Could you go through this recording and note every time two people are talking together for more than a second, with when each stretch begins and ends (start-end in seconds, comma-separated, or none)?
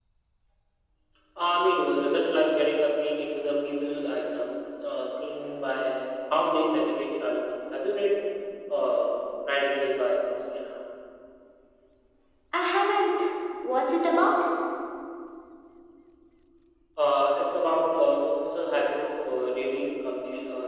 none